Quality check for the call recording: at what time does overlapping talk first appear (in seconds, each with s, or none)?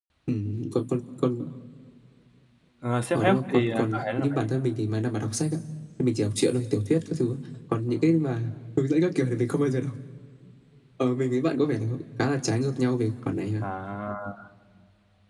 3.1 s